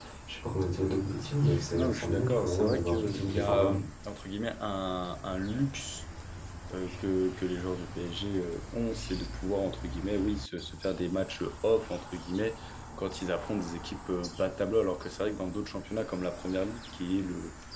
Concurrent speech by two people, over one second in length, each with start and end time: 1.7-3.8

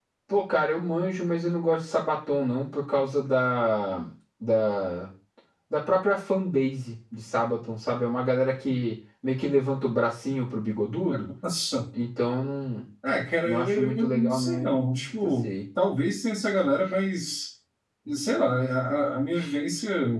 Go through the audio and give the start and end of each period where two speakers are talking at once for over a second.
13.4-15.5

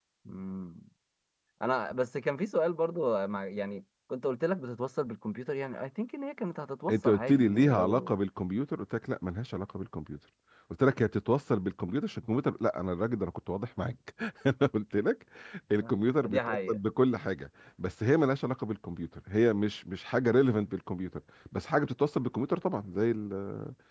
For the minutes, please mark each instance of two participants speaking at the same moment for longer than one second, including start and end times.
6.9-8.1

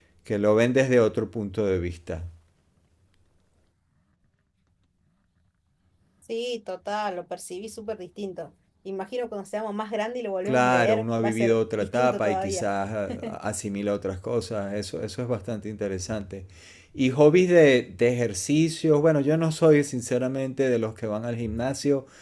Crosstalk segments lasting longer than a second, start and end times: 10.4-12.6

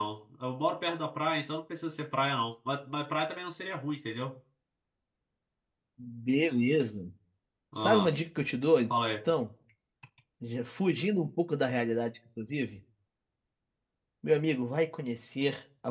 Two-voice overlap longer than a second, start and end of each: none

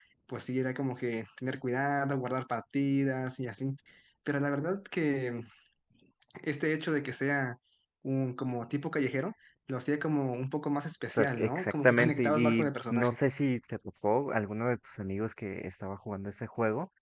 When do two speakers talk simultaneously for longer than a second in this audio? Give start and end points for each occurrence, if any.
11.1-13.2

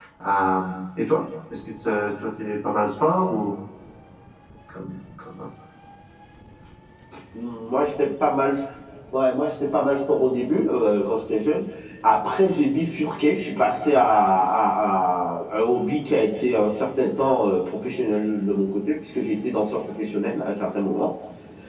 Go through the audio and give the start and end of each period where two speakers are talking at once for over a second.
none

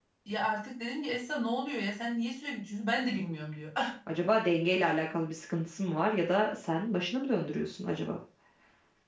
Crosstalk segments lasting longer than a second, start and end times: none

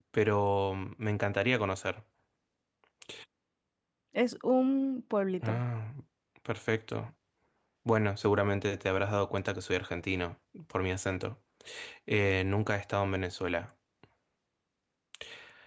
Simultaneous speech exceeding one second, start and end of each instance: none

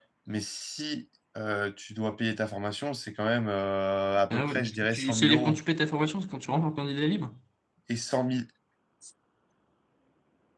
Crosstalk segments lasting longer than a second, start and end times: 4.3-5.6

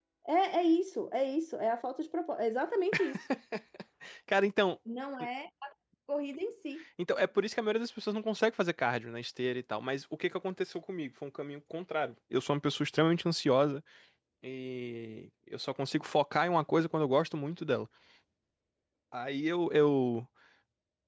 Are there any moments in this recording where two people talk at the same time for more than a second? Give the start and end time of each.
none

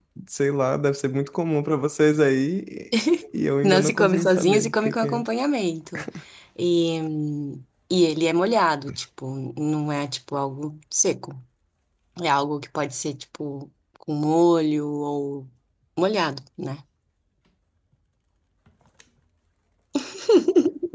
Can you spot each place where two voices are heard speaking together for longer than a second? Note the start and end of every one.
3.6-5.2

